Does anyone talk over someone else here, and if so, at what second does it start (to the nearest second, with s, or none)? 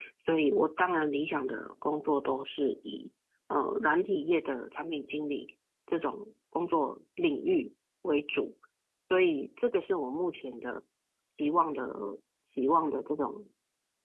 none